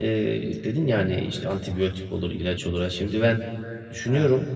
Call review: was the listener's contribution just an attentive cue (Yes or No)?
Yes